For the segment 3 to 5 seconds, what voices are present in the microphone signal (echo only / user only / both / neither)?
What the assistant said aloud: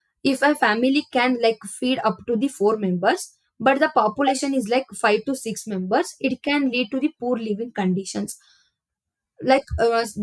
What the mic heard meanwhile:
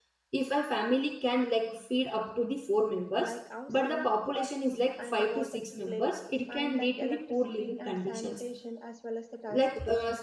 both